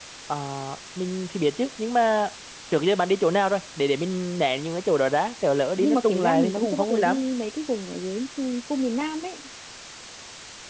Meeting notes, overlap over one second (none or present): present